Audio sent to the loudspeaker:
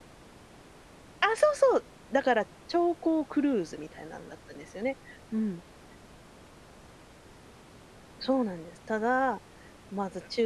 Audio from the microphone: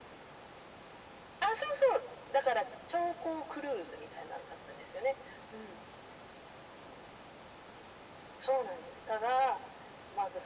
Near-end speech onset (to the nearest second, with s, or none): none